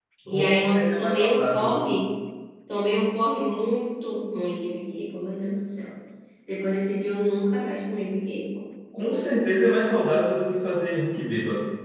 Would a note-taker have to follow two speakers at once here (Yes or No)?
Yes